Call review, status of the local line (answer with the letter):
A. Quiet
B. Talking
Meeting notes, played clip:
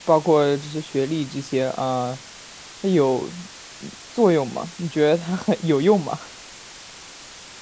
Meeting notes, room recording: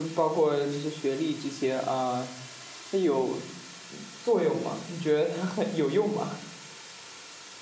A